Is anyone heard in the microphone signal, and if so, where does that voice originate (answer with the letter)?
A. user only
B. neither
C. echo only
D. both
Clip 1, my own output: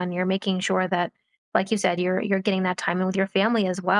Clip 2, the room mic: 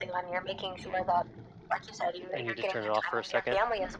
D